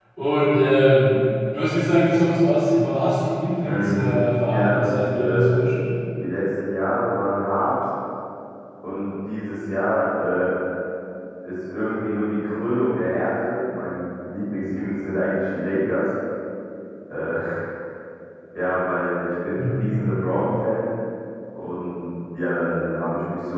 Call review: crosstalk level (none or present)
present